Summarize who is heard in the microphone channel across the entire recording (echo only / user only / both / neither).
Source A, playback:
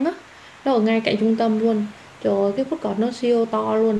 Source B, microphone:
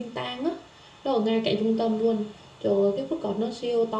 echo only